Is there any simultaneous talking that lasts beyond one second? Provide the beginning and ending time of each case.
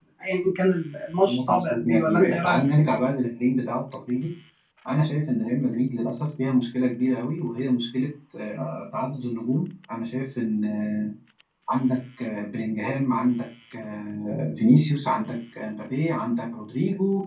1.2-2.6

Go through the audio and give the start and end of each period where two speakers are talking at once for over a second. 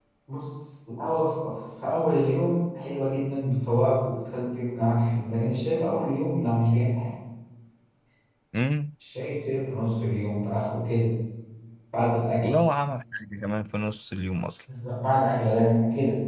none

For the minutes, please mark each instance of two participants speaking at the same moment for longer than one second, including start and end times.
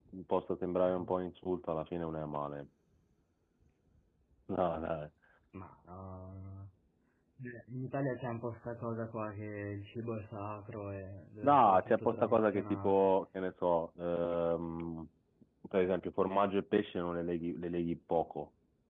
11.4-13.1

